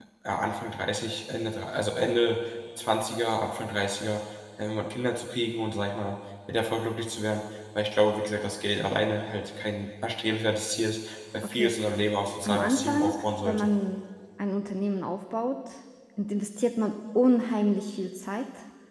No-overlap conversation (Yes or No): No